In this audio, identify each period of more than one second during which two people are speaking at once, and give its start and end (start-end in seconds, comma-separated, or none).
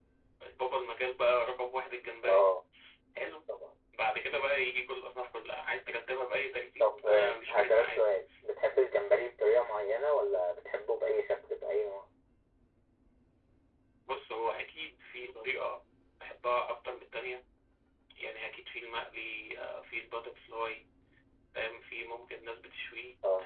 6.8-8.0